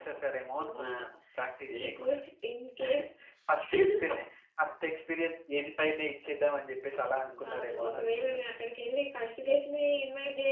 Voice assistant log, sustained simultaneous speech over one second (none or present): present